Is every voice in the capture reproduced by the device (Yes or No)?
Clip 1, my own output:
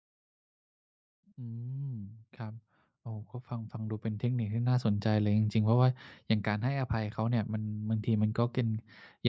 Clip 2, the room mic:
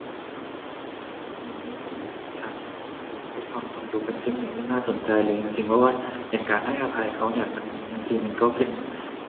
Yes